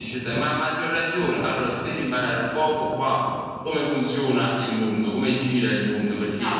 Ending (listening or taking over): taking over